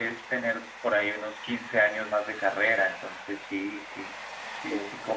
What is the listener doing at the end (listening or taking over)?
taking over